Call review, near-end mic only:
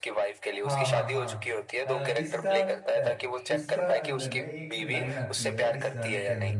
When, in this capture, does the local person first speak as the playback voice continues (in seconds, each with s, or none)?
0.6 s